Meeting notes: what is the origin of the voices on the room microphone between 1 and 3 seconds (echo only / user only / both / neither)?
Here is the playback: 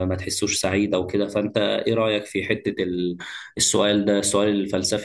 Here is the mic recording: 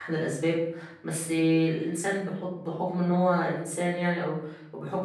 user only